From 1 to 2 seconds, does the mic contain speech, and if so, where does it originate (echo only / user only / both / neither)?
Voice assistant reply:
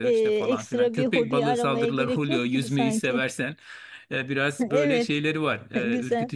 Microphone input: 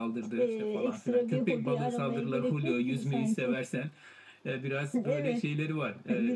echo only